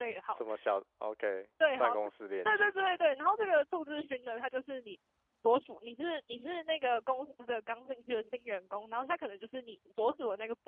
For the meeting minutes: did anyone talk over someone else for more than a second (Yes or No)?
No